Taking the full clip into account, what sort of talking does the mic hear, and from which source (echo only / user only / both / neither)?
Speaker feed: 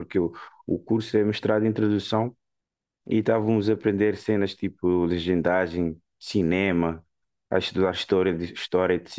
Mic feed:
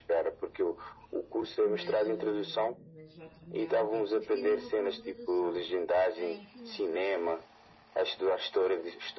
both